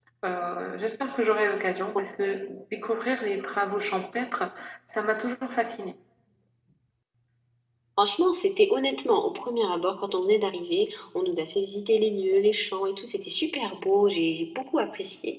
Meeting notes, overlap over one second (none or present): none